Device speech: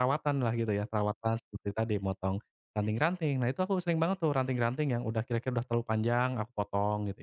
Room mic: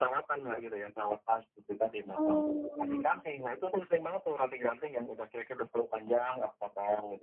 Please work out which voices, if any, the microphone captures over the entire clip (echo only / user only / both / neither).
both